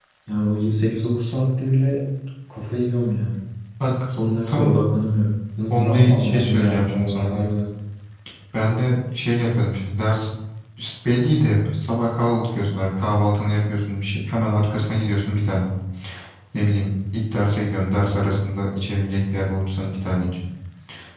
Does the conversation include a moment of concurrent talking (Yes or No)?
Yes